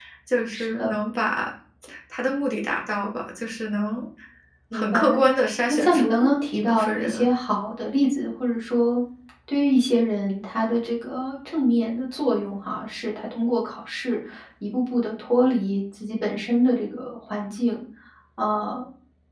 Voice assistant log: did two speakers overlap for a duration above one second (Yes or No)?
Yes